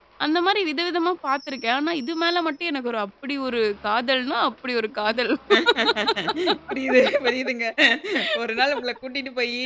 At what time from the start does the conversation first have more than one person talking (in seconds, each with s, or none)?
none